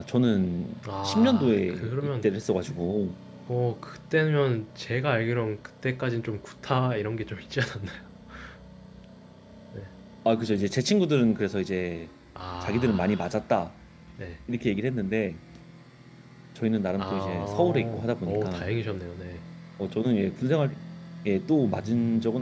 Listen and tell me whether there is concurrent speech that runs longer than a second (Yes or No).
Yes